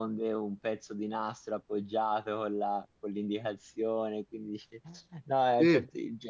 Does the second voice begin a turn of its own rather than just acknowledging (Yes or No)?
No